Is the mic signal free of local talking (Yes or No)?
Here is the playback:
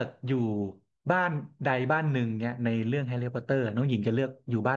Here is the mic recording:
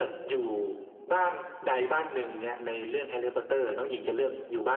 Yes